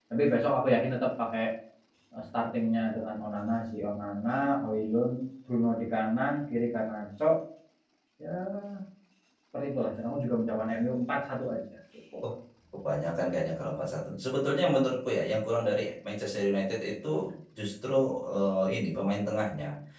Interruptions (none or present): none